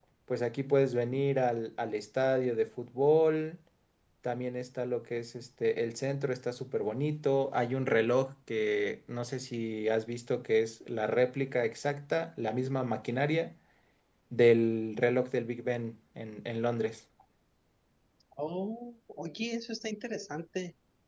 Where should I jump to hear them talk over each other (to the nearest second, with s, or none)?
none